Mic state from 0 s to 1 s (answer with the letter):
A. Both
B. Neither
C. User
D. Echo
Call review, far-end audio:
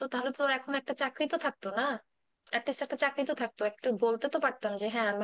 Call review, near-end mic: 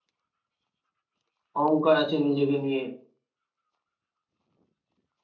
B